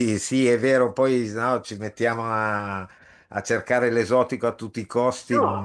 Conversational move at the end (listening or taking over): taking over